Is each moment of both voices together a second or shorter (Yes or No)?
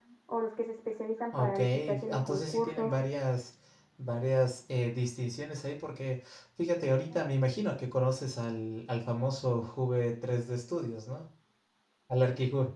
No